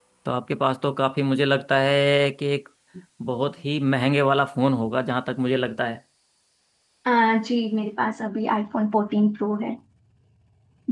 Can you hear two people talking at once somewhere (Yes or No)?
No